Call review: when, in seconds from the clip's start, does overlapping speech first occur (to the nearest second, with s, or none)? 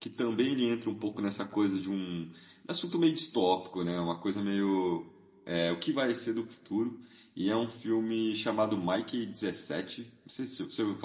none